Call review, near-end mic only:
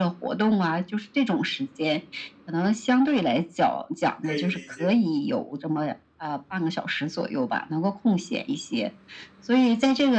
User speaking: Yes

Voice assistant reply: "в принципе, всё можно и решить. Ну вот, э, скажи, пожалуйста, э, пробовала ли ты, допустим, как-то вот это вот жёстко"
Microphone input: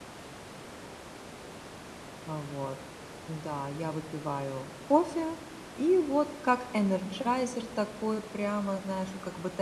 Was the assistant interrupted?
Yes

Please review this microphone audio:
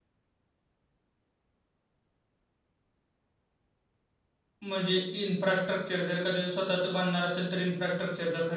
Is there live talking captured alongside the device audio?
Yes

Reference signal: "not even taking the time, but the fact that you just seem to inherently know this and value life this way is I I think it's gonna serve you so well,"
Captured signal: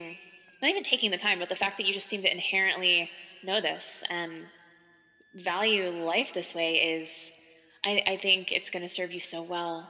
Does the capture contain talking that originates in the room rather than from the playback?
No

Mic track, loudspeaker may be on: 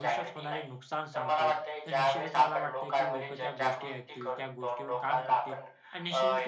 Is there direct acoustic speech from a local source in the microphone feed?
Yes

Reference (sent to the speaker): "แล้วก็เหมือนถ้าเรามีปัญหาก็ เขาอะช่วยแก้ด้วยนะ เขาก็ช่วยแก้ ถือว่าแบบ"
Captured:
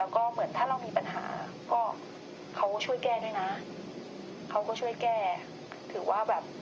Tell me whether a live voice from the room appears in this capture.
No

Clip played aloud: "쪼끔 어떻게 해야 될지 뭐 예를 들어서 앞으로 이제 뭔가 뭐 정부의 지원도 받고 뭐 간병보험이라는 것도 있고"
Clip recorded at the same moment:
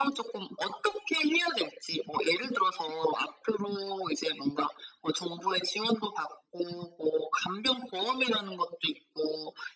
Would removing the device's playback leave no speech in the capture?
Yes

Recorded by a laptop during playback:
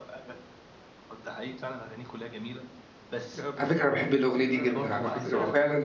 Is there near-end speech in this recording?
Yes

